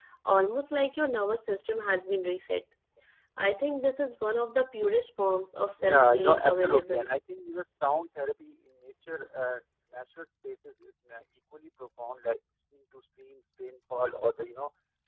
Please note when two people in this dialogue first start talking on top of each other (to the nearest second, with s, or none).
6 s